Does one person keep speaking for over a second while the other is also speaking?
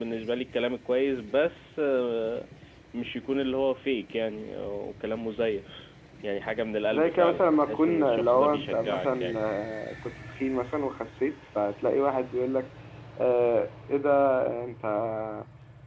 Yes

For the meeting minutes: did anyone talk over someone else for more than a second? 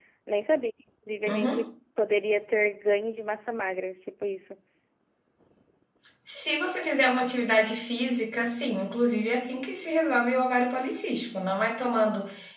No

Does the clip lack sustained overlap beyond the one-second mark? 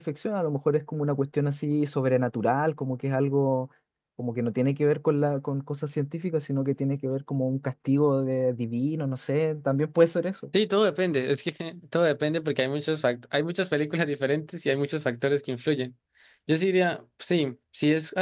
Yes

